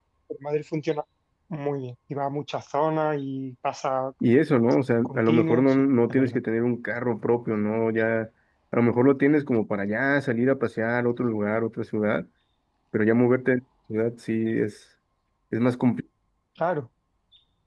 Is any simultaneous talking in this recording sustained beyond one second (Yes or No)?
Yes